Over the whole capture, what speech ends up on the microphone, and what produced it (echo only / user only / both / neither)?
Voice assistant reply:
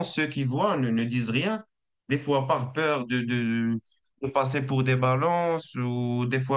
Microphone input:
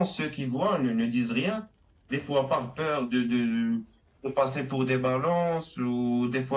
echo only